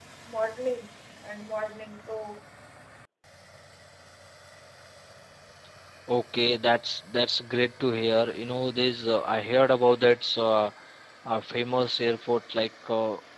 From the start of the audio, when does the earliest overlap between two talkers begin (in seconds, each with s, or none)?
none